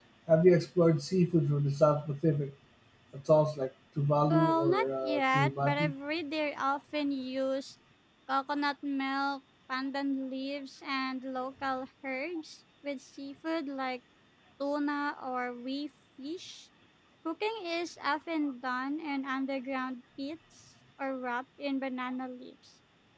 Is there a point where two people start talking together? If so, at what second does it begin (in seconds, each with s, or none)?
4.3 s